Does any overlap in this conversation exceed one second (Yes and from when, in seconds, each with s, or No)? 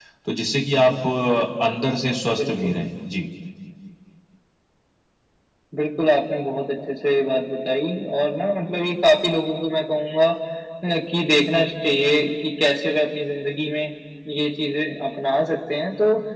No